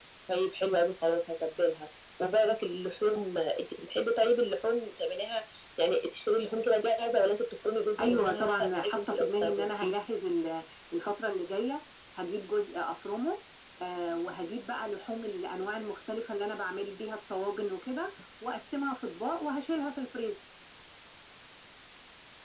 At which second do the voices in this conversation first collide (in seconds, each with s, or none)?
8.0 s